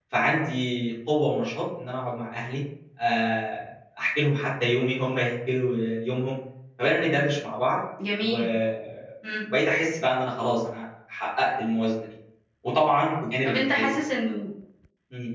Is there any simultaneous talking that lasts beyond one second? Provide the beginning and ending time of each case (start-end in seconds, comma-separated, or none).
none